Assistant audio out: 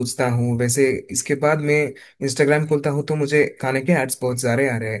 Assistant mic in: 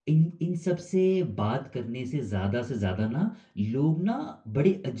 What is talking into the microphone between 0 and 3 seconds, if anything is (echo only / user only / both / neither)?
user only